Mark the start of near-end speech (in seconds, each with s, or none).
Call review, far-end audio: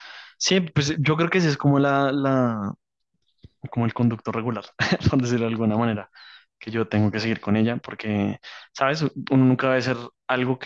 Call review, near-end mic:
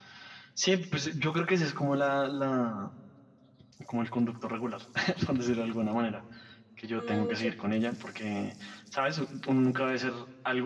7.0 s